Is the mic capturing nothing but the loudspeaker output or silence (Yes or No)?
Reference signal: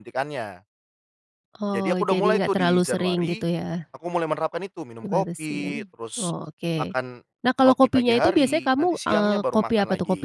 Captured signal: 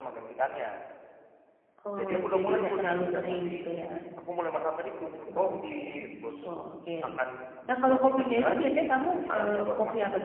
Yes